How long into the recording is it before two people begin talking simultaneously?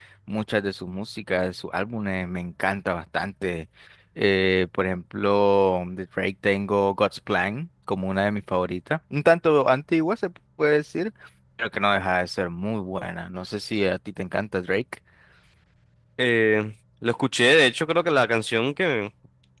none

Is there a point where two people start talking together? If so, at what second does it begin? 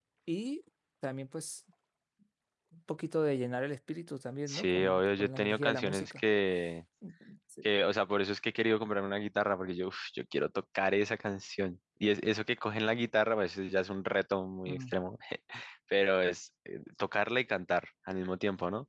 4.5 s

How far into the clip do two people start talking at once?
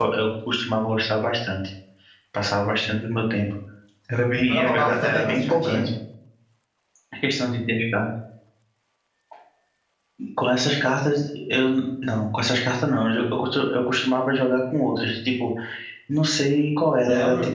4.5 s

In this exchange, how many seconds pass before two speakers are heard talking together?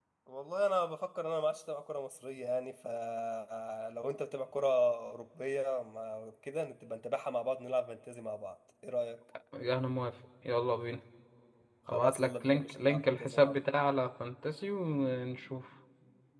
11.9 s

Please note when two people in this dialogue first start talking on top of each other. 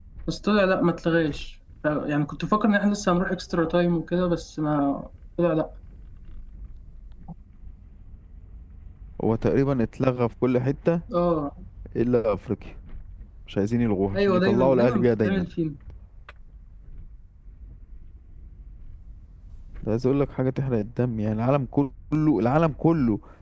14.1 s

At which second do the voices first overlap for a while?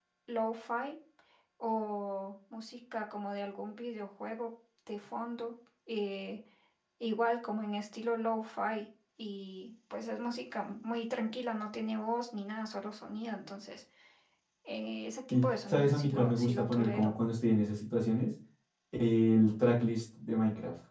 15.4 s

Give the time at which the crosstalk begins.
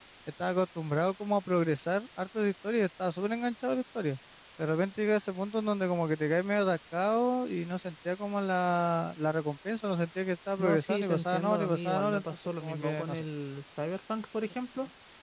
10.6 s

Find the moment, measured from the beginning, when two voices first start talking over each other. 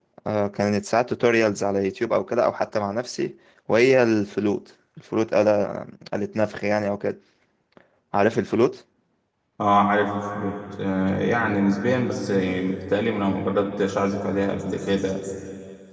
none

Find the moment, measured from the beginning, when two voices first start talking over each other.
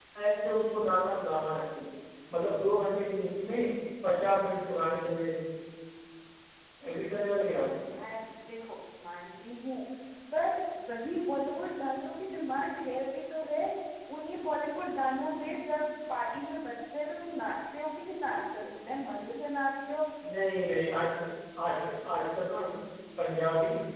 none

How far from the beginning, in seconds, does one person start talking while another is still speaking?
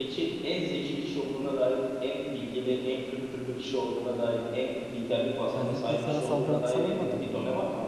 5.5 s

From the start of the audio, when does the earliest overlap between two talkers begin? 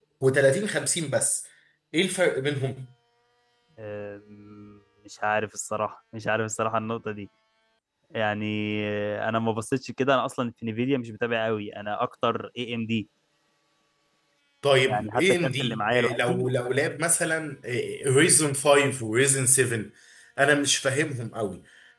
14.9 s

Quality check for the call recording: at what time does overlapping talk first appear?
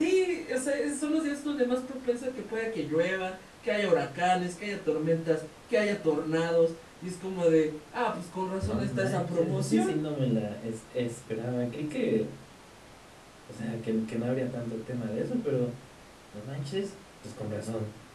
8.6 s

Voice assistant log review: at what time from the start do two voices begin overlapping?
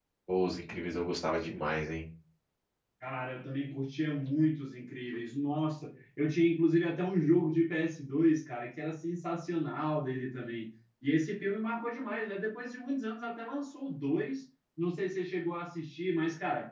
none

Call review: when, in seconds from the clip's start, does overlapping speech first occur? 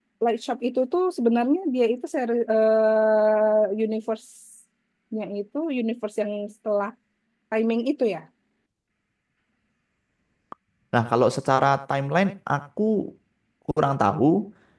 none

